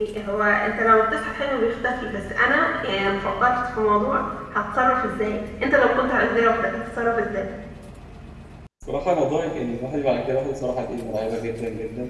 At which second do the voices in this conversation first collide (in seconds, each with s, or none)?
none